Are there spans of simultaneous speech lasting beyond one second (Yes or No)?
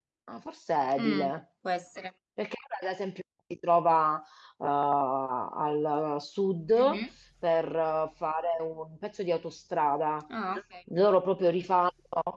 No